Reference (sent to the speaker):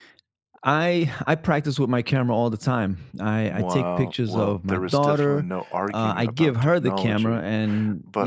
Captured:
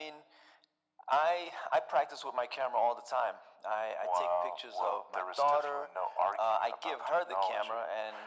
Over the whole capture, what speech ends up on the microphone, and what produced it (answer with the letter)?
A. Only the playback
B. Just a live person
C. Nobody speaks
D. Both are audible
A